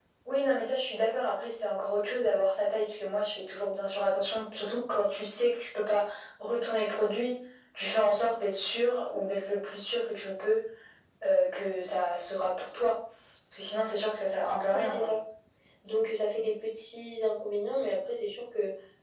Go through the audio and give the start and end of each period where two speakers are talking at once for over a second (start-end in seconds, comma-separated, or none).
none